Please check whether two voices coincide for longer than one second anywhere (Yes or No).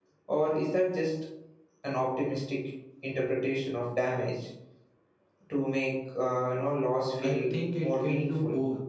Yes